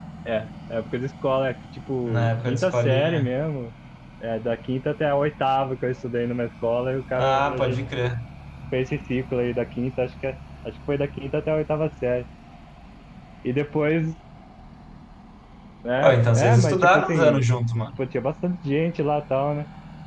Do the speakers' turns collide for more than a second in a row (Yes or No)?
Yes